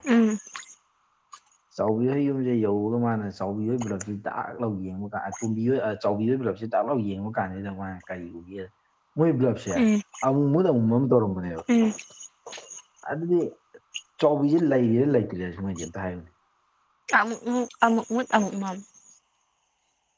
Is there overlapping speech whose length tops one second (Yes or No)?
No